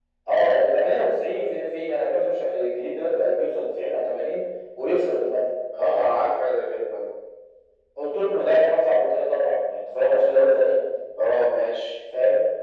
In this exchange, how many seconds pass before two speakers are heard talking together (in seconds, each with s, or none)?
none